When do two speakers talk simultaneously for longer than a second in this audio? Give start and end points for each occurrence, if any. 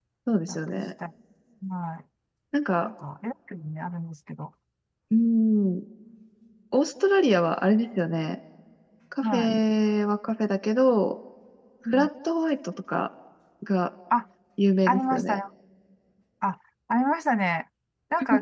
none

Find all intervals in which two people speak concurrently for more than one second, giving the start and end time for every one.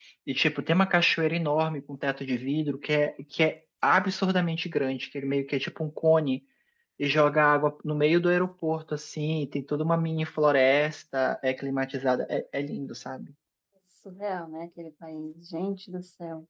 none

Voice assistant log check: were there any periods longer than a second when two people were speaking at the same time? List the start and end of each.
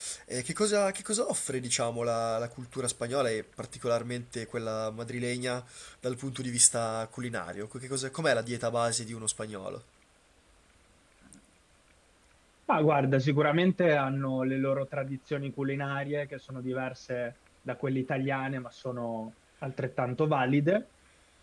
none

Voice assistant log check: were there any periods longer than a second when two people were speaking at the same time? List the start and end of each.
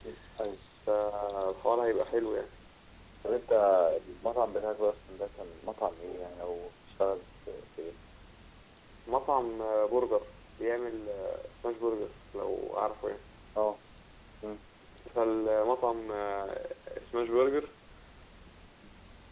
none

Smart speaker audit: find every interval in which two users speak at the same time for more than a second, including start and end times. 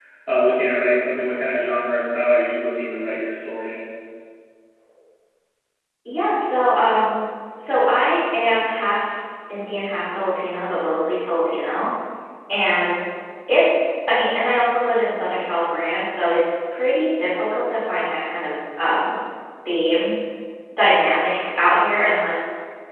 none

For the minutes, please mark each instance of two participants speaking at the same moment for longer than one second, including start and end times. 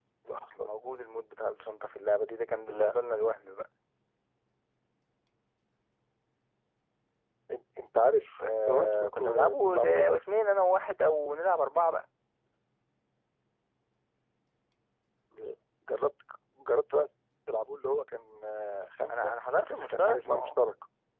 8.4-10.2, 19.1-20.5

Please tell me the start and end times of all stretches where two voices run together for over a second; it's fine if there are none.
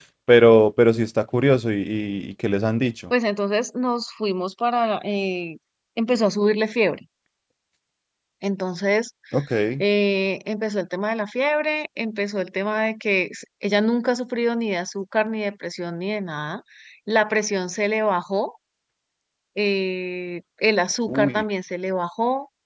none

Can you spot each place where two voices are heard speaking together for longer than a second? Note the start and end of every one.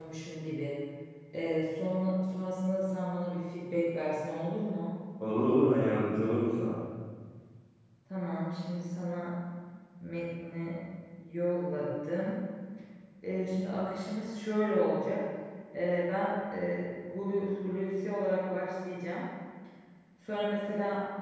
none

